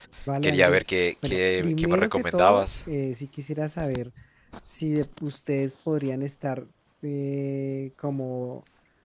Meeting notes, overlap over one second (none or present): present